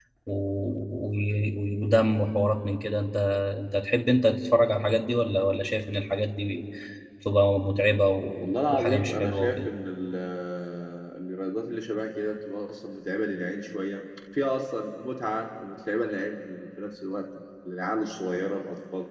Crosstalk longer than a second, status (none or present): present